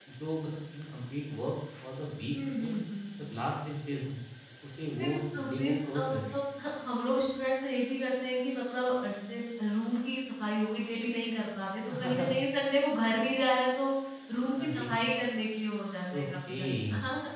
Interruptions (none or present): present